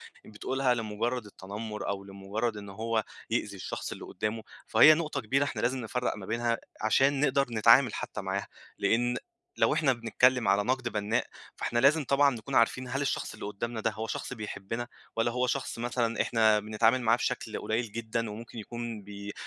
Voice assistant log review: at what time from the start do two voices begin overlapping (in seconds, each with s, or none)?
none